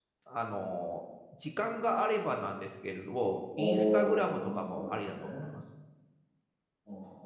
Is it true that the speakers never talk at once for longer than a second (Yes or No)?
No